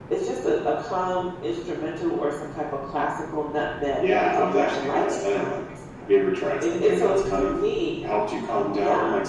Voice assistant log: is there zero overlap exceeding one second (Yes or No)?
No